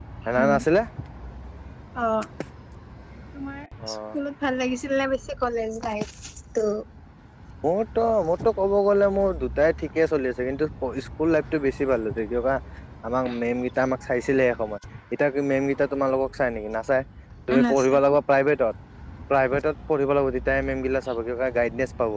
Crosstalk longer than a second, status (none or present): none